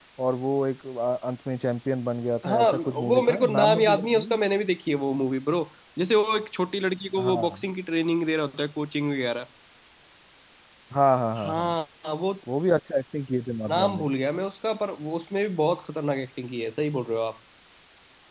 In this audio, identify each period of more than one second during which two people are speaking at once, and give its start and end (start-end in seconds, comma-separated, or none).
2.5-4.4